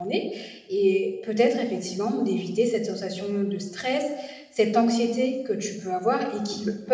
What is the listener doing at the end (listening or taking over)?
listening